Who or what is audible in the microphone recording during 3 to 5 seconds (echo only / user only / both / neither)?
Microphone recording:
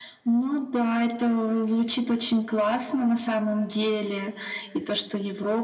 echo only